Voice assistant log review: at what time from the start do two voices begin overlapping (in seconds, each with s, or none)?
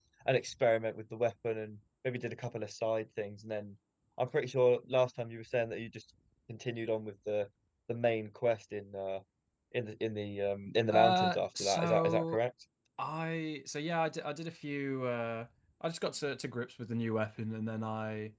10.9 s